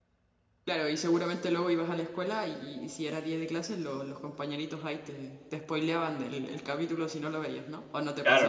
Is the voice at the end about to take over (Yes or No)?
Yes